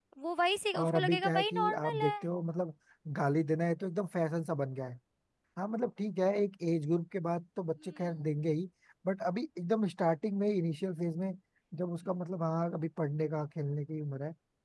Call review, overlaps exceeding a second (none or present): present